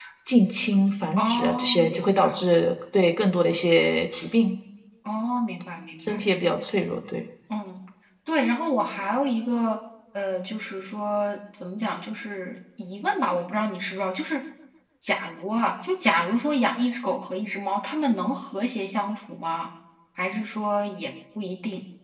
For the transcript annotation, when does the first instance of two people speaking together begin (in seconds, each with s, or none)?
1.2 s